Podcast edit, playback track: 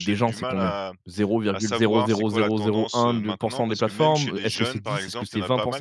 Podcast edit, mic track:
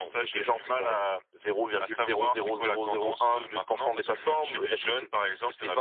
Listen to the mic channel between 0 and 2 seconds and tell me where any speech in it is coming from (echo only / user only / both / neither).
echo only